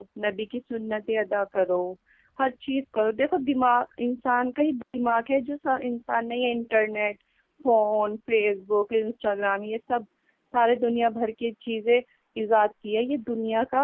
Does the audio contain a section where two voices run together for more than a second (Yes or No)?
No